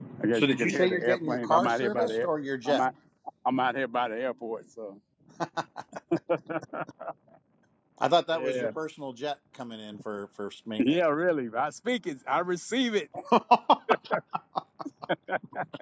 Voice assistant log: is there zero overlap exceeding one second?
No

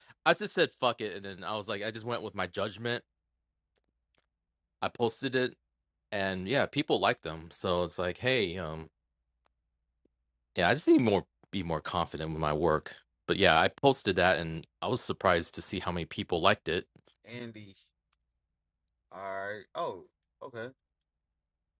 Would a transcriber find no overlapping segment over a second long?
Yes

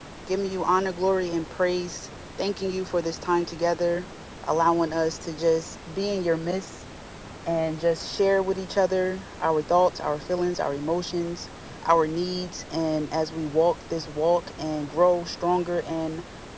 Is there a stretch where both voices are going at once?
No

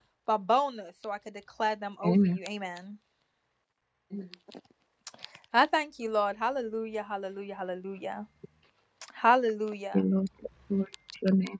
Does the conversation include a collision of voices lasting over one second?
No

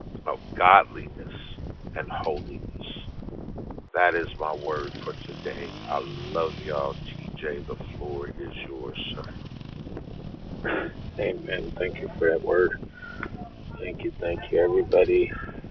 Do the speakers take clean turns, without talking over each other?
Yes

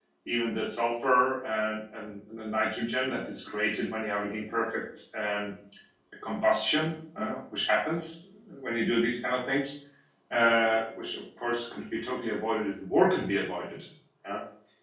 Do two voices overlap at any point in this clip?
No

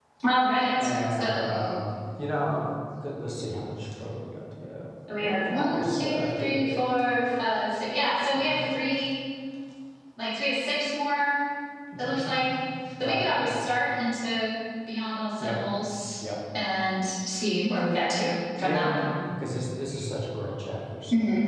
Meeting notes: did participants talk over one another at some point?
Yes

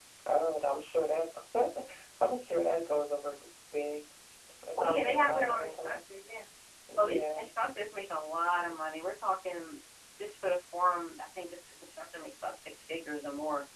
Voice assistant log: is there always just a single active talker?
No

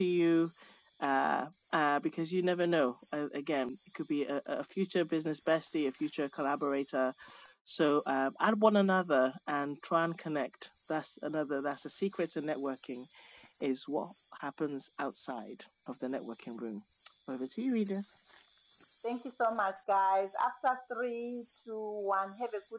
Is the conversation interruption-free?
Yes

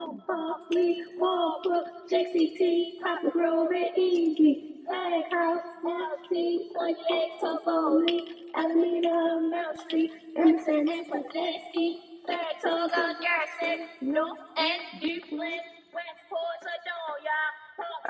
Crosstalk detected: No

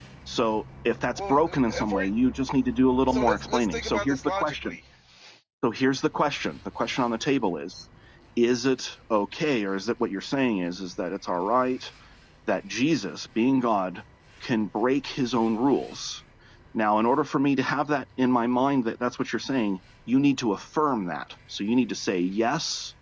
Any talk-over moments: Yes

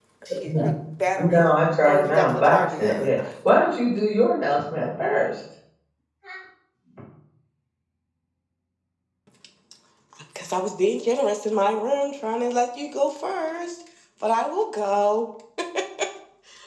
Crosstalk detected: Yes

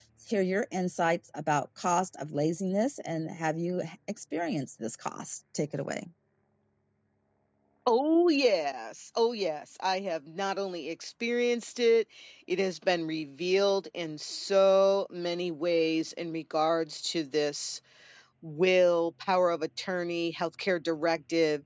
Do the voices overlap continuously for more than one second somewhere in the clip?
No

